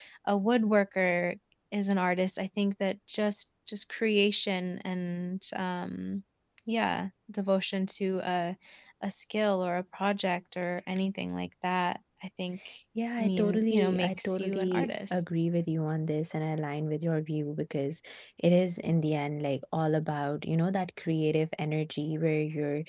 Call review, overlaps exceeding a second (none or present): present